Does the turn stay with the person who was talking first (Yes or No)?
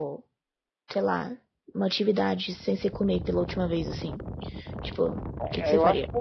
No